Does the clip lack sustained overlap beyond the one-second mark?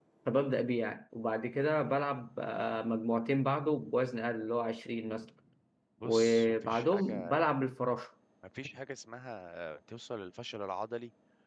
No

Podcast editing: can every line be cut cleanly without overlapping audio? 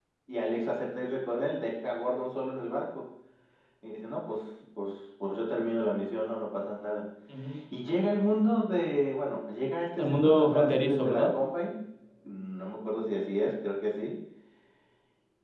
No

